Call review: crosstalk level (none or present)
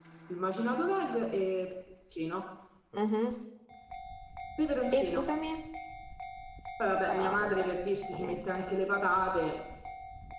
present